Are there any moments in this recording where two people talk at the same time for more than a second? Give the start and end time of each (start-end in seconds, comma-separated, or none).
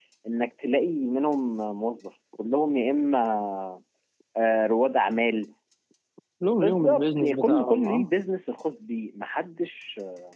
6.6-8.1